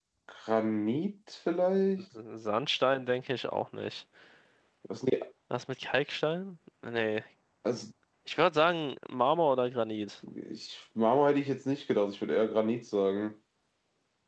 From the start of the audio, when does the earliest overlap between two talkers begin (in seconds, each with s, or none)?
none